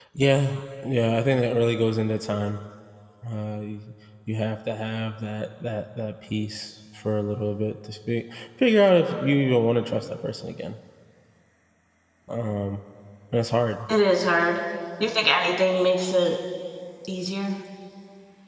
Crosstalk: none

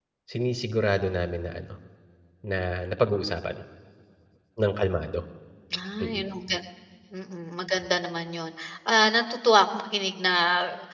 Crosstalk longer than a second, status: none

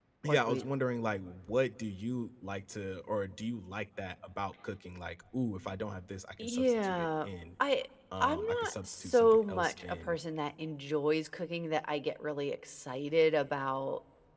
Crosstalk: present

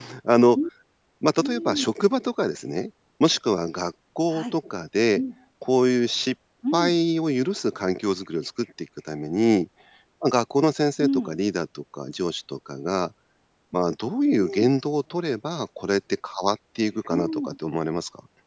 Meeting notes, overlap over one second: none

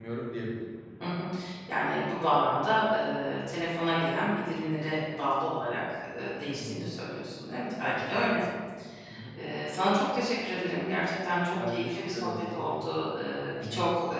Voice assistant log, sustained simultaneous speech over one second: present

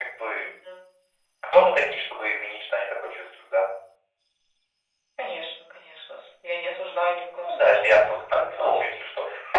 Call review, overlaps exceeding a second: present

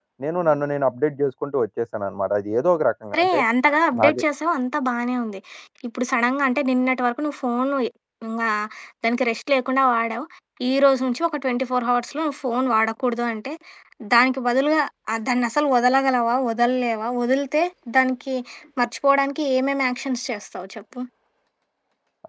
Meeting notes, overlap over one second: none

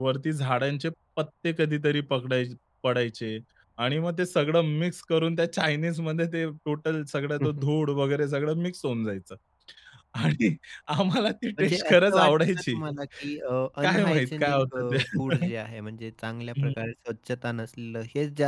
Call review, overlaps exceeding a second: present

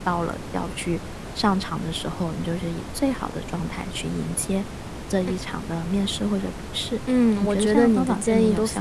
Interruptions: present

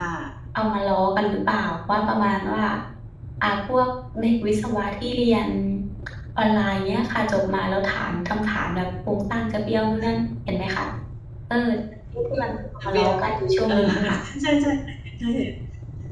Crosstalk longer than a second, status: none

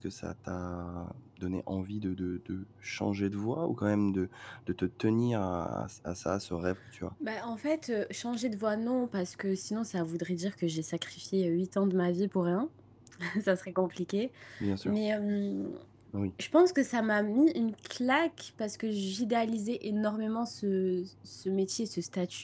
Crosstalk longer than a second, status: none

